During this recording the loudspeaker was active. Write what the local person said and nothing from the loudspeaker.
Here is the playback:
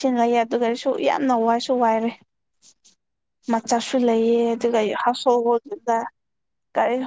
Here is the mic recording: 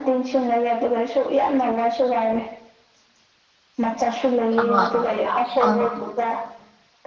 ꯑ ꯑ

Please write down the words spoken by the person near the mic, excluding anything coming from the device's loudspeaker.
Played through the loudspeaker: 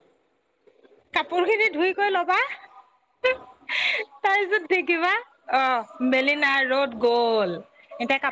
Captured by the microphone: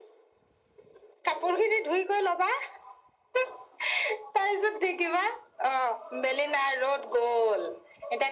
none

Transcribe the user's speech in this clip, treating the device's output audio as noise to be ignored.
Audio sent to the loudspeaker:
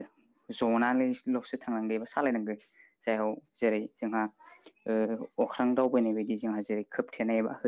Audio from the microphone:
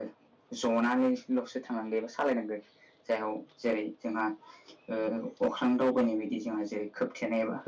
none

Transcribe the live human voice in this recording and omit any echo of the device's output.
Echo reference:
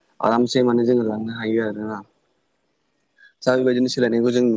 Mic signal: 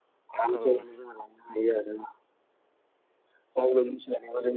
औ

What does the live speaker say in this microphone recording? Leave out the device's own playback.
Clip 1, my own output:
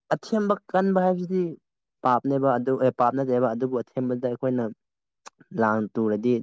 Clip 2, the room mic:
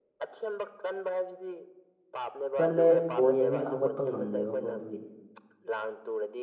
ꯆꯠꯂꯦ ꯕꯣꯜ ꯌꯦꯡꯉꯦ ꯍꯧꯒꯠꯄ ꯉꯝꯗꯦꯕꯀꯣ ꯑꯗꯨꯒꯤ

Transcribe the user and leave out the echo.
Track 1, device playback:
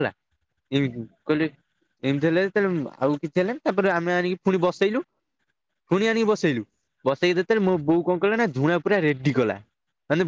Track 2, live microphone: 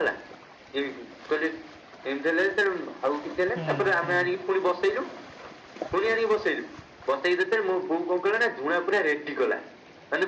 ହୁଁ ହୁଁ

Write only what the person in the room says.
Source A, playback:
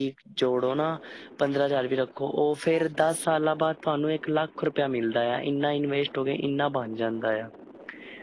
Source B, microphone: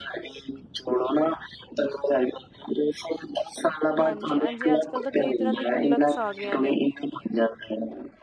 ਹਾਂਜੀ ਹਾਂਜੀ ਅੱਜ ਕੱਲ੍ਹ ਤਾਂ ਕਈ ਤਰ੍ਹਾਂ ਦੇ ਗੁਲਕਸ ਆ ਗਈਆਂ ਨੇ

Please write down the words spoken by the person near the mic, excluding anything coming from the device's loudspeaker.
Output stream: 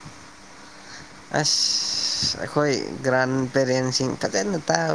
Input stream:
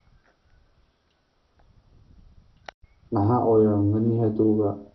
ꯅꯍꯥ ꯑꯣꯏꯔꯝꯒꯅꯤ ꯑꯗꯨꯒ

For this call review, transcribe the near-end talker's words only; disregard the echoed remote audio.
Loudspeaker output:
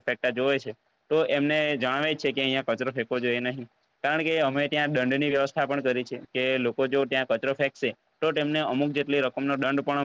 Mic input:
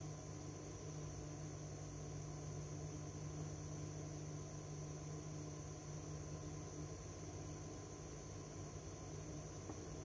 none

